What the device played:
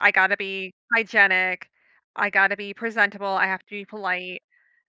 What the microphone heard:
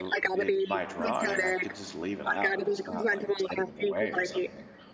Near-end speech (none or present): present